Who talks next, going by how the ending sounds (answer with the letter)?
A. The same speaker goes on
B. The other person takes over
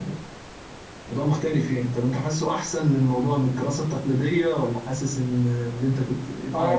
B